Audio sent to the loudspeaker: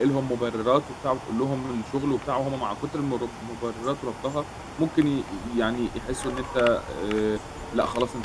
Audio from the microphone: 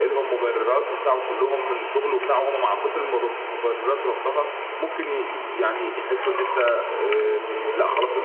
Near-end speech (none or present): present